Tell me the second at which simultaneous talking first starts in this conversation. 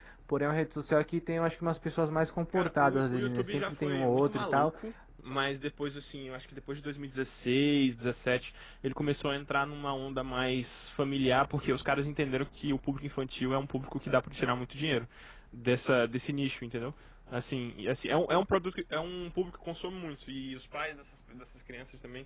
2.5 s

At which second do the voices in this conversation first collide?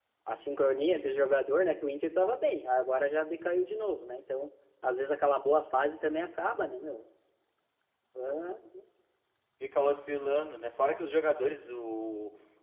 none

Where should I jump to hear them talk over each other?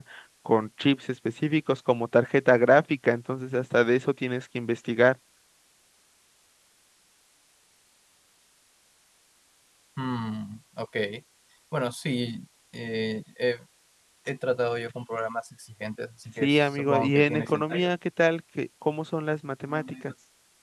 16.4 s

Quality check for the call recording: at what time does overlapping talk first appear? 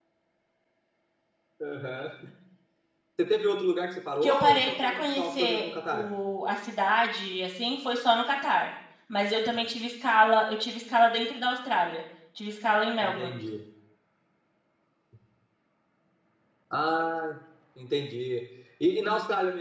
4.2 s

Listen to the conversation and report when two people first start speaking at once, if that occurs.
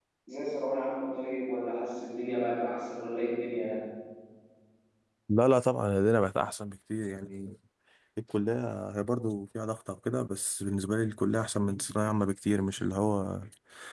none

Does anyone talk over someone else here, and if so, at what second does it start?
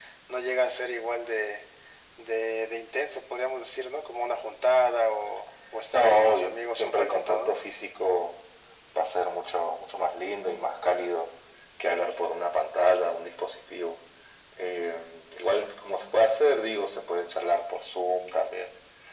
5.9 s

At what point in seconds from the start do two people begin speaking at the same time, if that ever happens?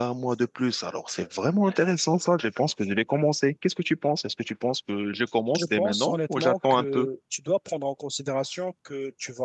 5.5 s

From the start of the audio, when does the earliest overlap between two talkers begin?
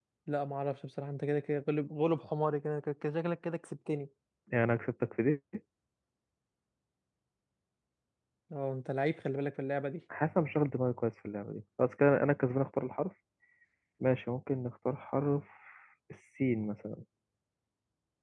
none

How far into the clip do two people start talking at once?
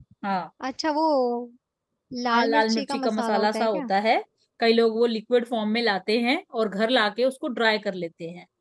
2.3 s

